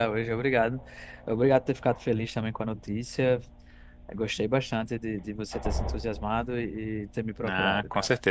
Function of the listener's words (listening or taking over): taking over